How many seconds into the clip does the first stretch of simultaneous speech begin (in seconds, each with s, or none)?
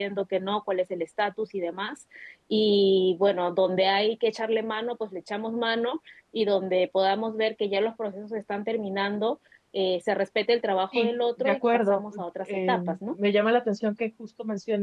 10.9 s